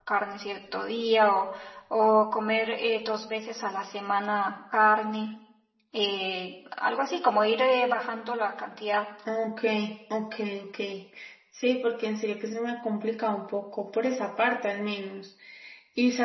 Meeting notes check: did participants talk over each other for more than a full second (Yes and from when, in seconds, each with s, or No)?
No